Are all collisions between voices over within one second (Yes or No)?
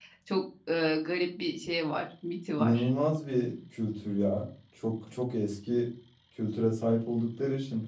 Yes